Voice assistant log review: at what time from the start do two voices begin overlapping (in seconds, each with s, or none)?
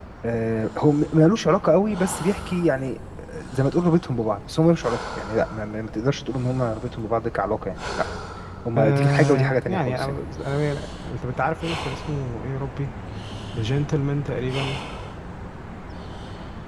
8.8 s